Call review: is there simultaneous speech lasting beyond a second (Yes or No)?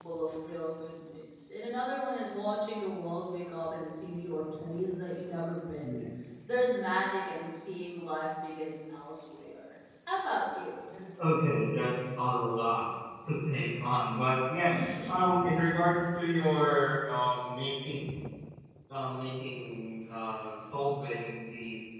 No